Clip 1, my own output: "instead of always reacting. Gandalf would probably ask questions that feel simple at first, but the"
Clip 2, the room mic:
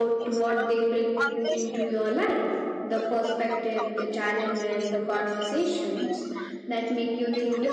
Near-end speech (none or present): present